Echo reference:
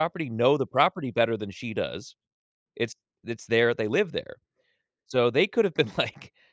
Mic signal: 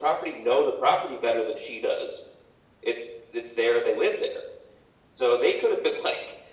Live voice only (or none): none